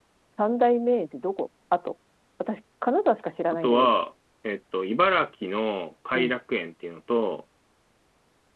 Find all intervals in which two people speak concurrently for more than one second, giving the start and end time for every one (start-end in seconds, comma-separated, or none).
none